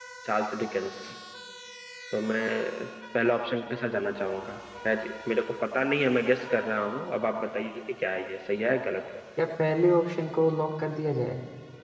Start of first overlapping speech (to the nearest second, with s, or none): none